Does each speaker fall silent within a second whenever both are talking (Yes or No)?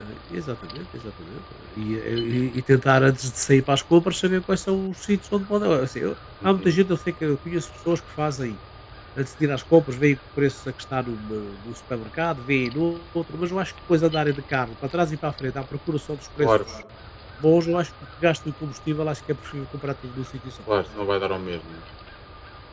Yes